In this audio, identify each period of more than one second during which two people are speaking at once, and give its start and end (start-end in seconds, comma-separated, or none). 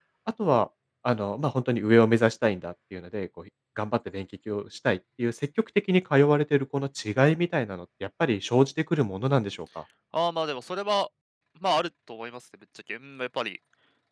none